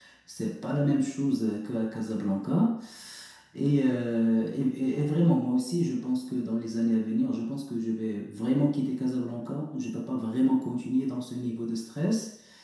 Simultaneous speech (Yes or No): No